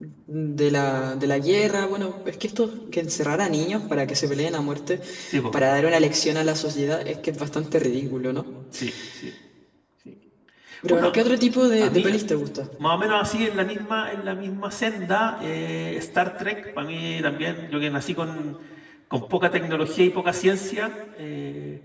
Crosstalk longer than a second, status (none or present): none